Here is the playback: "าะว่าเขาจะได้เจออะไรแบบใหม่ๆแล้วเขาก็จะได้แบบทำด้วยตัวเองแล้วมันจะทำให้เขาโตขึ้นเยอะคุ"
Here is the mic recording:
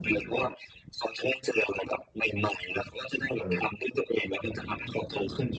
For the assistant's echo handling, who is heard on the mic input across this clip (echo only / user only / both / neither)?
both